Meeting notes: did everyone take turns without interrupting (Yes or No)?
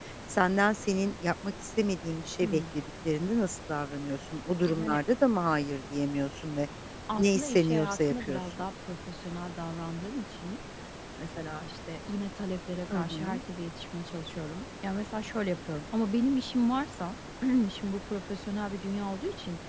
No